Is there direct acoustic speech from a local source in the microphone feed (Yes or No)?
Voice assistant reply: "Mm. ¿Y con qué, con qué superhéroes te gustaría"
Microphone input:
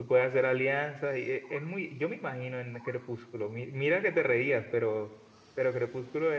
Yes